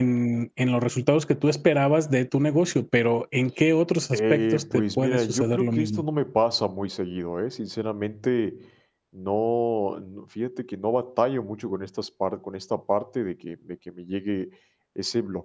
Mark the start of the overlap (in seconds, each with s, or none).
4.1 s